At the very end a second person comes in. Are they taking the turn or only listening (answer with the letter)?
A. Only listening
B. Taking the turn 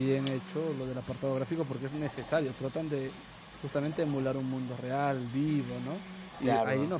A